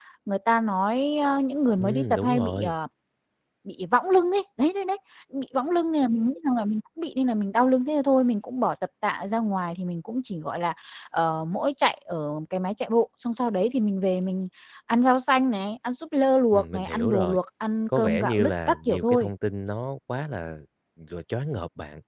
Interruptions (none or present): present